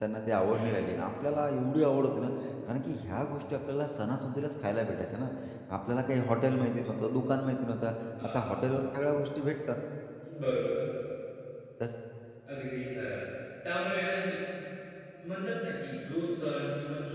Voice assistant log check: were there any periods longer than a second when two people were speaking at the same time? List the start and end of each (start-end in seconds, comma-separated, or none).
none